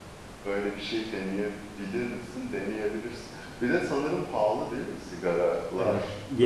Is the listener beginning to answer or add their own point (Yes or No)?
Yes